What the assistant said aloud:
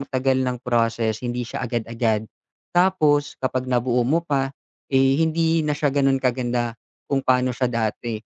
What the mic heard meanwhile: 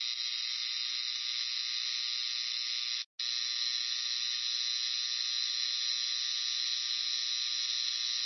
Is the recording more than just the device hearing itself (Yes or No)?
No